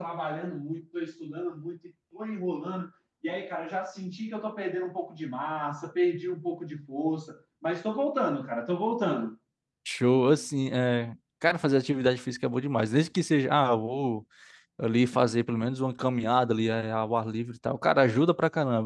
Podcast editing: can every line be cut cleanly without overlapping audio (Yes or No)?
Yes